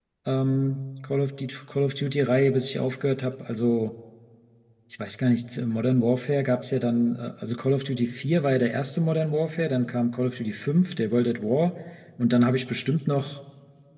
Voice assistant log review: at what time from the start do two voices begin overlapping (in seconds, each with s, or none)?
none